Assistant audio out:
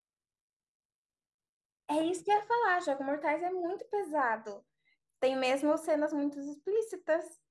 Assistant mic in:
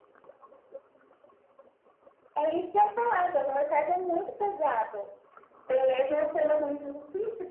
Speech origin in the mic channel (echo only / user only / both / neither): echo only